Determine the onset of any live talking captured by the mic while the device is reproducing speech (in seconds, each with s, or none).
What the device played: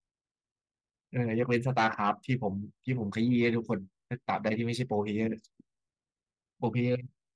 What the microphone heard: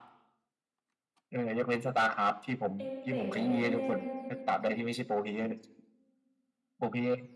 2.8 s